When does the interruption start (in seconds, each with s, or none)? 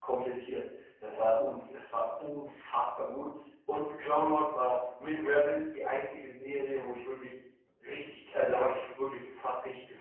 none